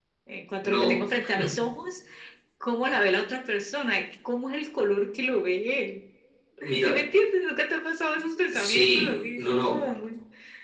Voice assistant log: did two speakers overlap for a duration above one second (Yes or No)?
Yes